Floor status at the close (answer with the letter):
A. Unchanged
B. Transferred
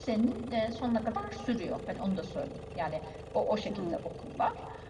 A